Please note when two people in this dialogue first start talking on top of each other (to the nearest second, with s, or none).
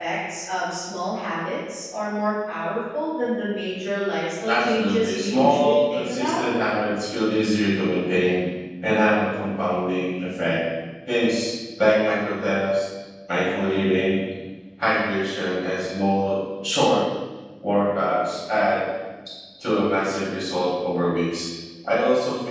4 s